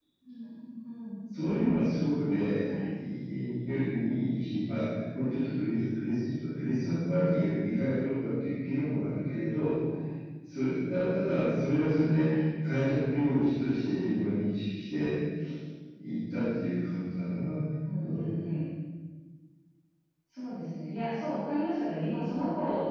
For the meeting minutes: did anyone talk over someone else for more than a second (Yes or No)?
No